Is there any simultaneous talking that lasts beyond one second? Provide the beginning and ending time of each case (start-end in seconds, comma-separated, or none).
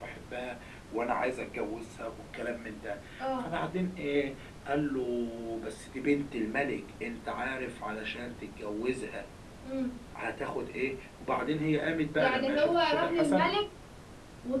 12.2-13.5